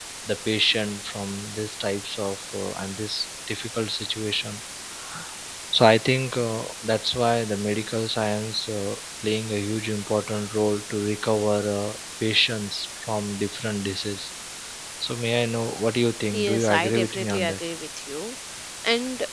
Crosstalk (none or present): present